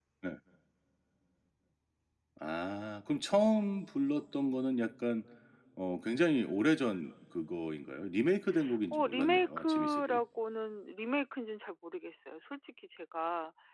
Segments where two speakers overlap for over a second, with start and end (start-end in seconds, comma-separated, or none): 8.9-10.2